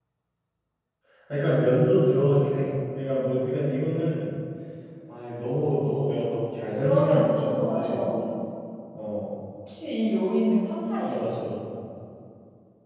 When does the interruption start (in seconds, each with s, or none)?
6.8 s